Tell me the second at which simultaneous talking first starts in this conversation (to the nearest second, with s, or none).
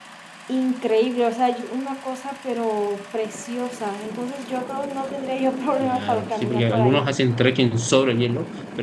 6 s